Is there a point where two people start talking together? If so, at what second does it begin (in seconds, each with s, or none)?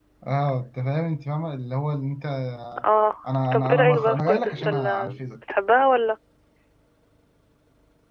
3.5 s